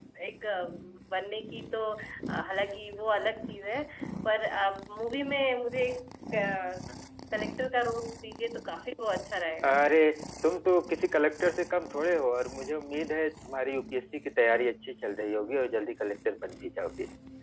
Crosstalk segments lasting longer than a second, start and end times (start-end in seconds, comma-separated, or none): none